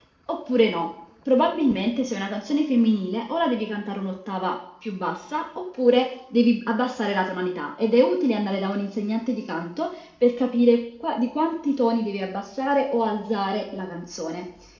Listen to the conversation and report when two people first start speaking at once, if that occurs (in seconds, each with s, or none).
none